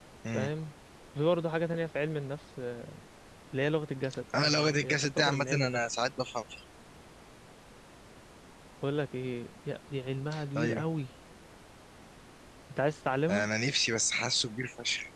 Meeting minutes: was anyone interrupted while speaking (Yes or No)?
Yes